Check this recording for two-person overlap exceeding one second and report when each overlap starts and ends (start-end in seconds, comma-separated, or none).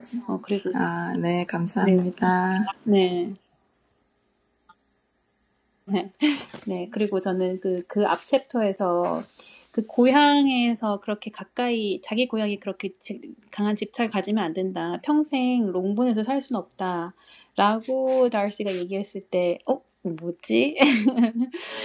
none